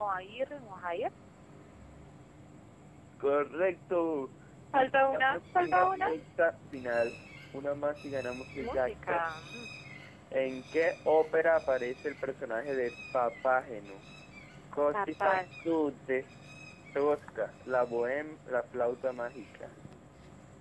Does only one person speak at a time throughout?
No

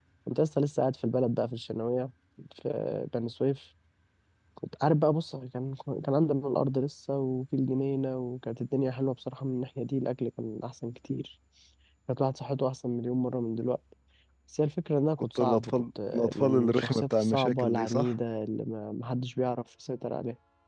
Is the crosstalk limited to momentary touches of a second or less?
No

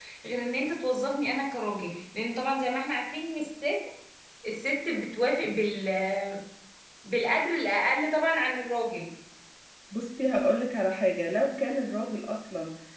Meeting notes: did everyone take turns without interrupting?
Yes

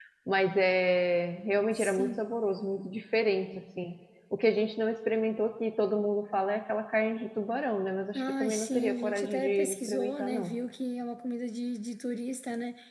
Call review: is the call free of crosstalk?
No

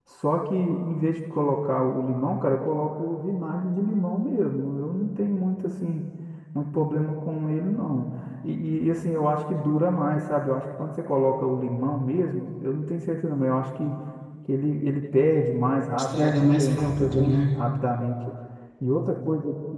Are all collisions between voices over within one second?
No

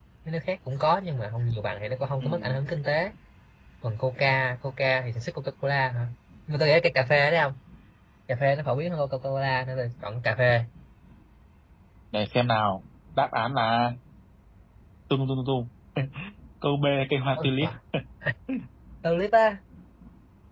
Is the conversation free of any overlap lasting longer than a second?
Yes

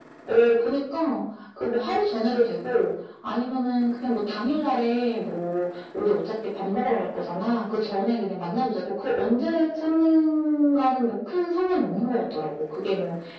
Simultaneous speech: No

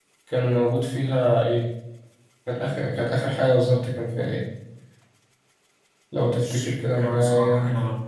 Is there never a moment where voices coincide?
No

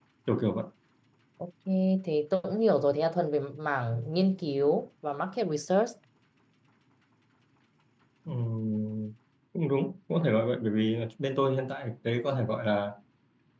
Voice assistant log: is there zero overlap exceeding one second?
Yes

